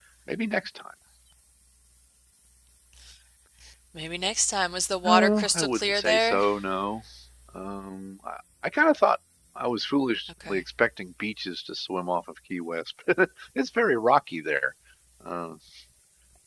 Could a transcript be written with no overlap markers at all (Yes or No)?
No